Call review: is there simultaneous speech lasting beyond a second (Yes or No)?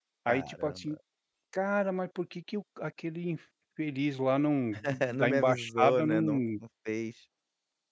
Yes